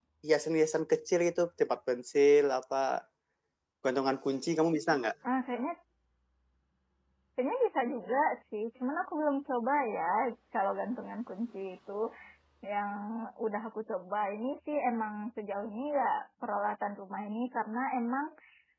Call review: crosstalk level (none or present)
none